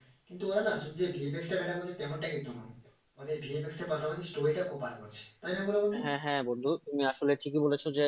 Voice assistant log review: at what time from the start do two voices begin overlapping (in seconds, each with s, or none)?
none